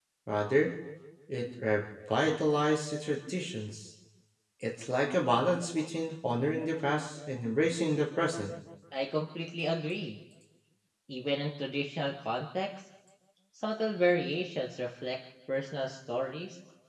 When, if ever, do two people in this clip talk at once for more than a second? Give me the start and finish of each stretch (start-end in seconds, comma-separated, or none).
none